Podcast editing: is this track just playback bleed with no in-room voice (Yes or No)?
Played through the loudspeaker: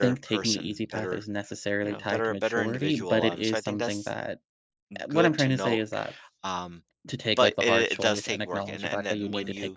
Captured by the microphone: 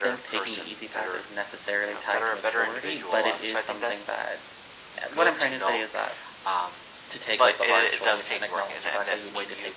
Yes